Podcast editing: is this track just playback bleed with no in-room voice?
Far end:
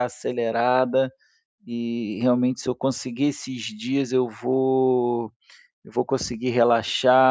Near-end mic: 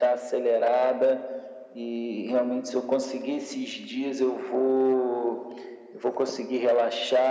Yes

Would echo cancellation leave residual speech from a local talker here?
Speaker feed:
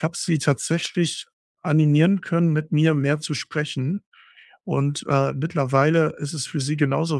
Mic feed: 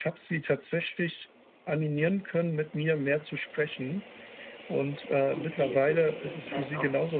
Yes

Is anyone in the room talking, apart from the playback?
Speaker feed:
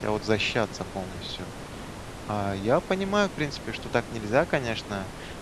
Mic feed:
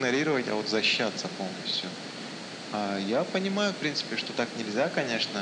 No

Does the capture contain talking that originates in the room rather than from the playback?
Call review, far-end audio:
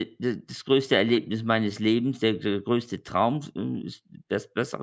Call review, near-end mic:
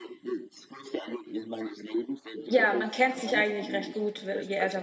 Yes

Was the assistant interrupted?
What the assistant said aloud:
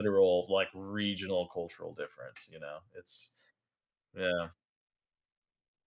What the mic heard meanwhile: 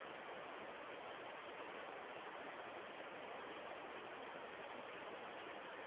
No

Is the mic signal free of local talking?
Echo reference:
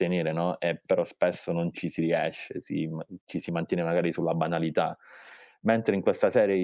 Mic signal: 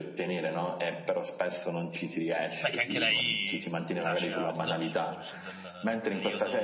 No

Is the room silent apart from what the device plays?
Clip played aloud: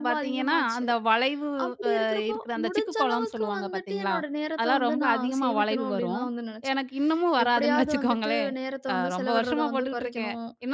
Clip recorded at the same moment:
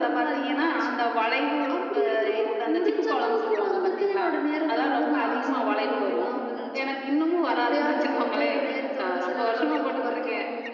Yes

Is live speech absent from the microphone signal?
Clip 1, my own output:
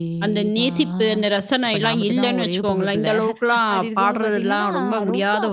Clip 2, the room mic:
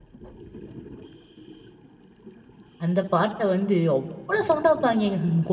No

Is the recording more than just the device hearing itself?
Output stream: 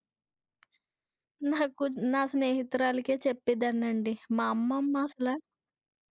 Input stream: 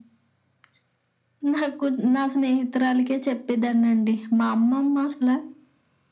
No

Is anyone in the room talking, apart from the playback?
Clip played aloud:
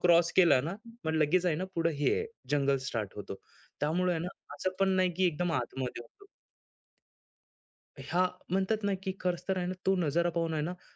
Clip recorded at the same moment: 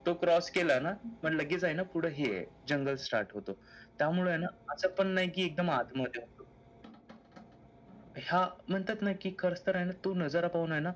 No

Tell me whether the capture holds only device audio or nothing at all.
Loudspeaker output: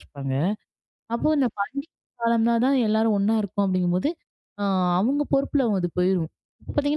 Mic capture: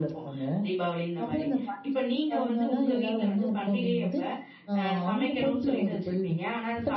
No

